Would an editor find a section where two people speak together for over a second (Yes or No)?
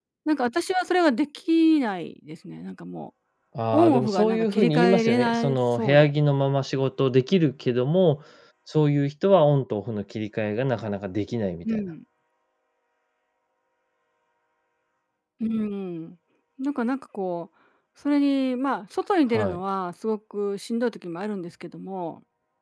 Yes